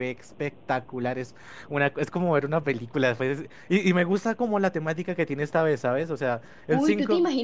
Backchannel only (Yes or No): No